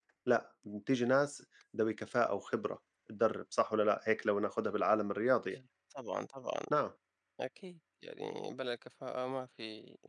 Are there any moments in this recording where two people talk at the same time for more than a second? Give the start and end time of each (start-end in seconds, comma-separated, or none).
none